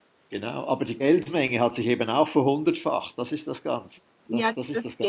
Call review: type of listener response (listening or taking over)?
taking over